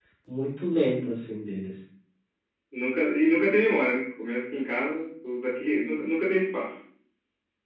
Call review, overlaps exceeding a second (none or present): none